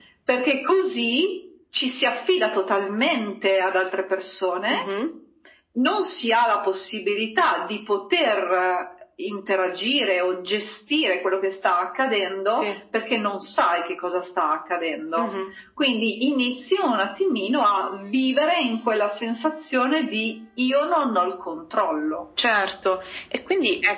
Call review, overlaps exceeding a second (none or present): none